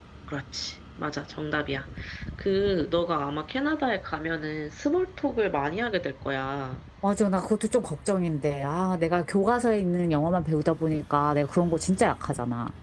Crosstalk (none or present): none